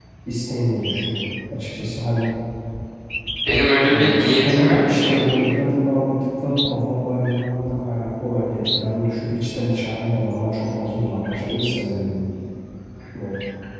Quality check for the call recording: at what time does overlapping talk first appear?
3.9 s

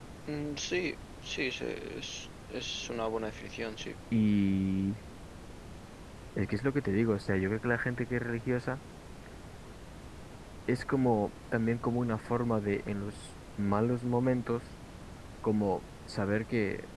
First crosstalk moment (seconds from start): none

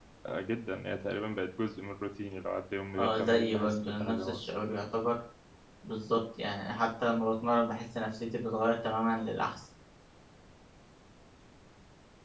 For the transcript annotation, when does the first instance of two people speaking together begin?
3.0 s

